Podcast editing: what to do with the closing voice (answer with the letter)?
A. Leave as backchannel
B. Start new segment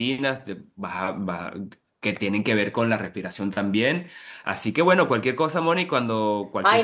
B